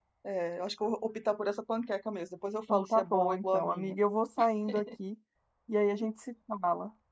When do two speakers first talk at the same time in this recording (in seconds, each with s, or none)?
2.7 s